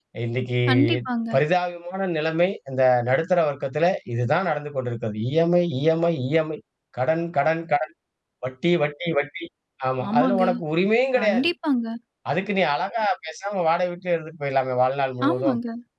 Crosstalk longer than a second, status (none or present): none